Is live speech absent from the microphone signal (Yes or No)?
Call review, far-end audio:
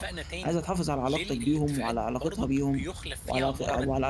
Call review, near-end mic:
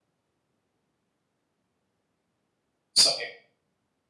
No